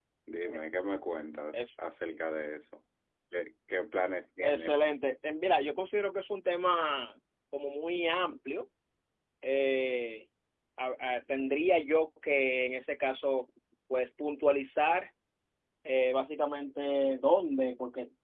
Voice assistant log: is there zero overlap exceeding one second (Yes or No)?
Yes